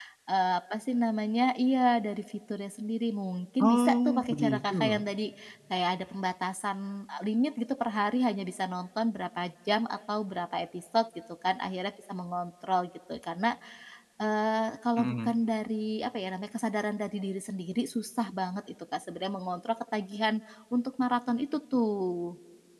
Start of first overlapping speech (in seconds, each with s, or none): 3.6 s